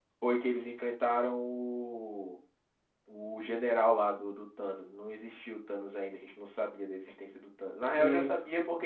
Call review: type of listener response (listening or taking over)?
listening